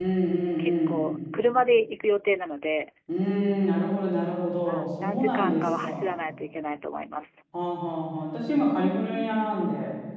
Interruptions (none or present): present